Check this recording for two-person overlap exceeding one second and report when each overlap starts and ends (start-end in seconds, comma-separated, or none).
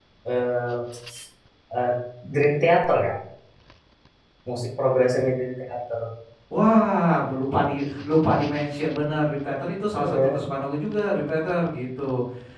none